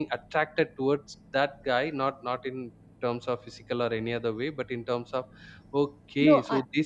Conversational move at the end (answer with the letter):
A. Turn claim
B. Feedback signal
B